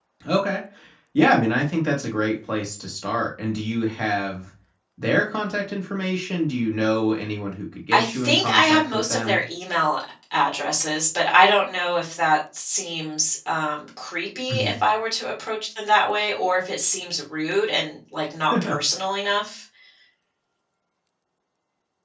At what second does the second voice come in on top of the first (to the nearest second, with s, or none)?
8 s